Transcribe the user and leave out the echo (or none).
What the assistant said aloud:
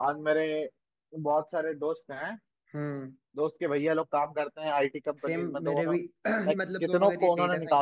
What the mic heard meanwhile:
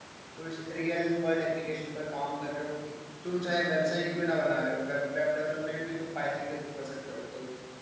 कुछ रियल वर्ल्ड एप्लीकेशन पर काम कर रहे हो तुम चाहे वेबसाइट क्यों ना बना रहे हो वेब वेब डेवलपमेंट भी तुम पाइथन के थ्रू कर सकते हो अब तो